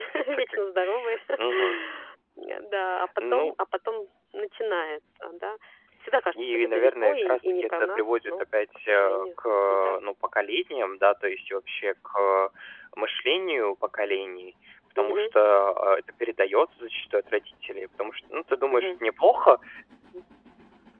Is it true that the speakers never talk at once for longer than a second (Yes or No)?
No